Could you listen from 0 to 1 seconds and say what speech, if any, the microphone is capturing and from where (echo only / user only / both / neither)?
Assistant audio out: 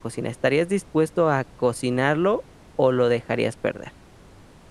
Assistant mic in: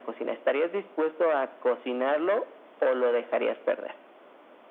echo only